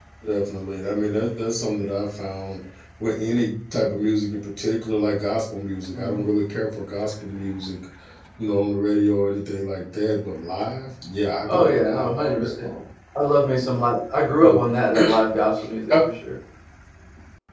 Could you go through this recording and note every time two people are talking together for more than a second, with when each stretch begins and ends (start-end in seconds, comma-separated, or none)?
11.5-12.7